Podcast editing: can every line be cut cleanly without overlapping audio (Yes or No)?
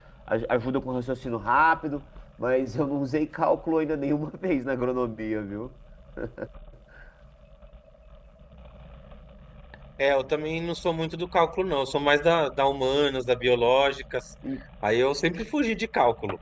Yes